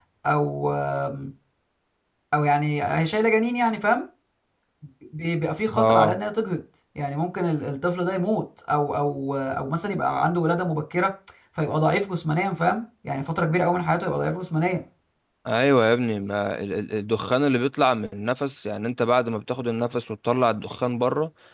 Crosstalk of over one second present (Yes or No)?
No